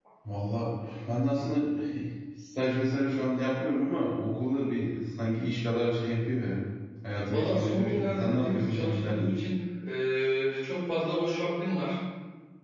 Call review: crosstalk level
present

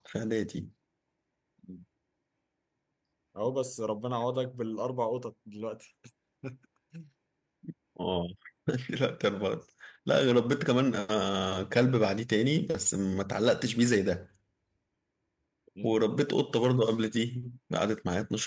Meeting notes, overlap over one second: none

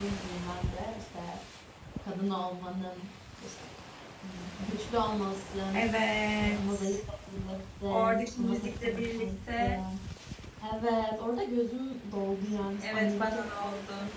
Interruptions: present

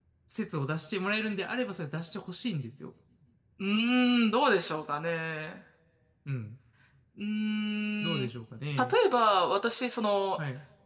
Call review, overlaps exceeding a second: none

